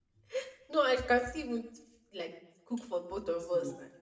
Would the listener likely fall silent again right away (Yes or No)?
Yes